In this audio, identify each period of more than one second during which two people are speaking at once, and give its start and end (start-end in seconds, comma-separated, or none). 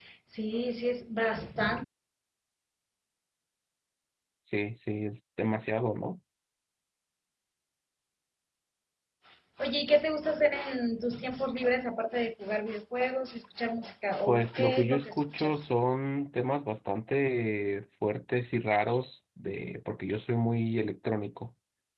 14.3-15.6